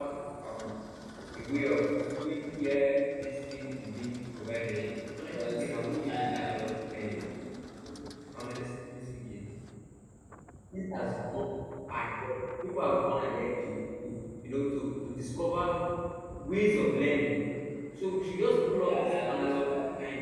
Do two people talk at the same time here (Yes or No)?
Yes